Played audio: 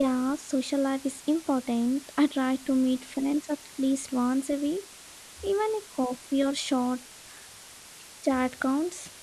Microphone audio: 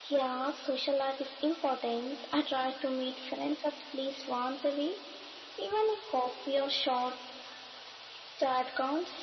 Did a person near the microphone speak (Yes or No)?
No